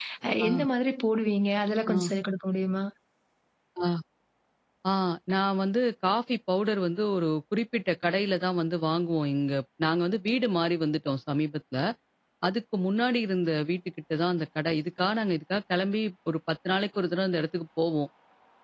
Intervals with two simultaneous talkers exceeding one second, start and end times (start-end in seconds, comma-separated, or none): none